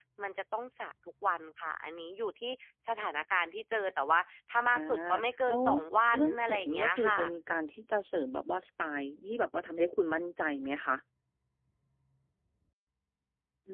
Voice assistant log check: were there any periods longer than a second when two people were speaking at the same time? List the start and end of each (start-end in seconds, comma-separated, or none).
6.1-7.3